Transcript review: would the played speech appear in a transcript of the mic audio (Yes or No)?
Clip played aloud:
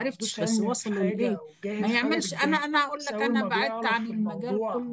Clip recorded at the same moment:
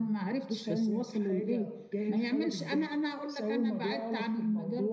Yes